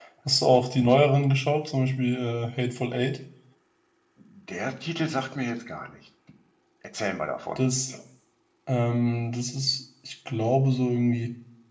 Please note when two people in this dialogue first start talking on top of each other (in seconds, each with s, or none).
none